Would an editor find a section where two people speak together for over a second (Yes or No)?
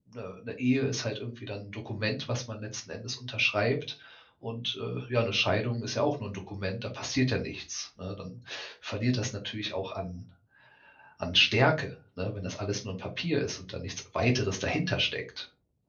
No